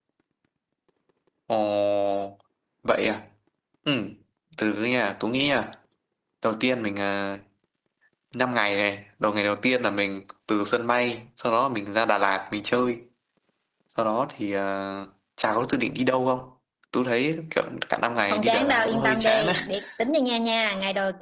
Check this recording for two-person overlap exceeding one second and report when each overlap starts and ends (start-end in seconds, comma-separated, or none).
18.3-19.5